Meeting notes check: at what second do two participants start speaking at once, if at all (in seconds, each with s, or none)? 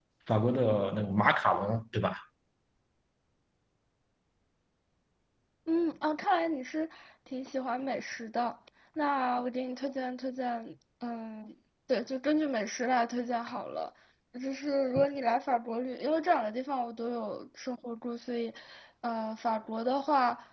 none